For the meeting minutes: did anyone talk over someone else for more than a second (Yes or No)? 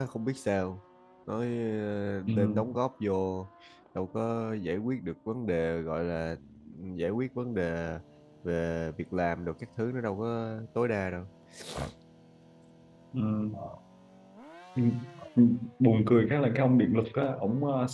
No